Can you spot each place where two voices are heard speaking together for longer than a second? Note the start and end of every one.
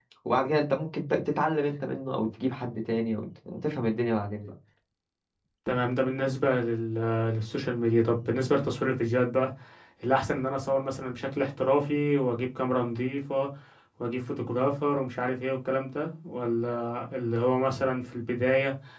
none

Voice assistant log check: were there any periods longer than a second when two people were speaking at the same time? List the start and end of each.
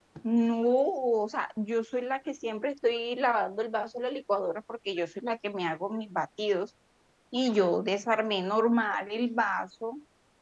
none

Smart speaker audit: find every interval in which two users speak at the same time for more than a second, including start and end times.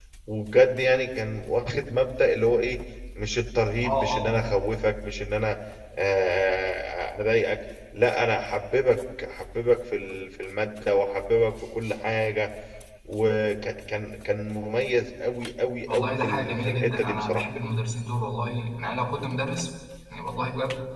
15.9-17.4

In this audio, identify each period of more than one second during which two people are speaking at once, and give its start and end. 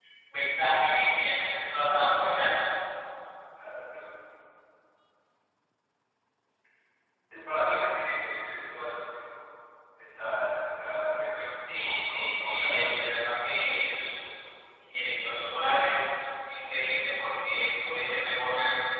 11.8-14.2

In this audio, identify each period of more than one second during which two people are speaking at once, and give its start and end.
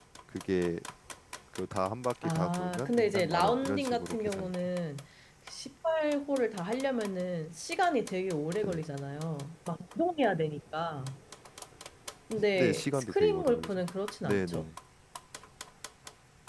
2.2-4.7, 12.4-13.7

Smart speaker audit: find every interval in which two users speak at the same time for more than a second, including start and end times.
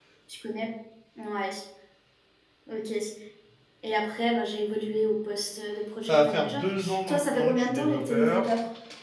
6.1-8.5

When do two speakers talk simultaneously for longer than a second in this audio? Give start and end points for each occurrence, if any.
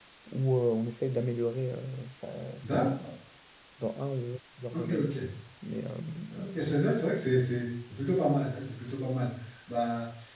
none

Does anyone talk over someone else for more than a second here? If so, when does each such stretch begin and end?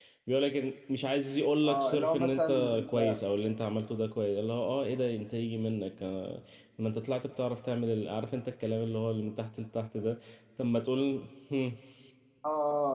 1.6-3.2

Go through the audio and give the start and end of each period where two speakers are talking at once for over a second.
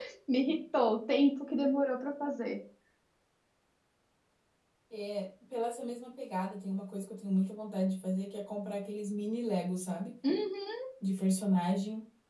none

